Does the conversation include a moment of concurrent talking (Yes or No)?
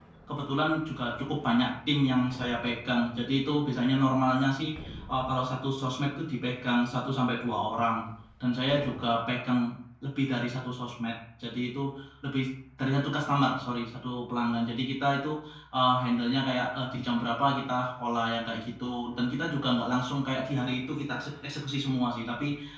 No